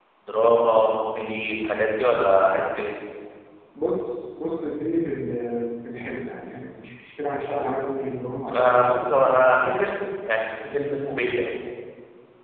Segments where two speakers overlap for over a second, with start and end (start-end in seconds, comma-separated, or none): none